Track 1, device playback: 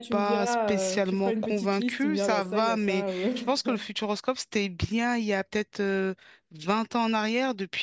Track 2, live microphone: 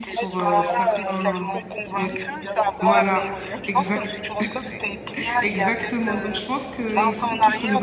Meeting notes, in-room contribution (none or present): present